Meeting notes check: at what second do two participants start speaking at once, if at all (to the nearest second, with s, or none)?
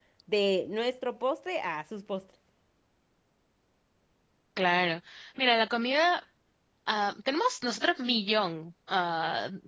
none